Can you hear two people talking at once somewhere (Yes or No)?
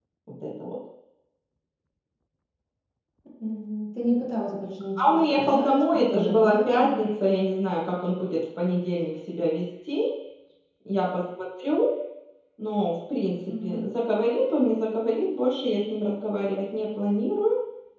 Yes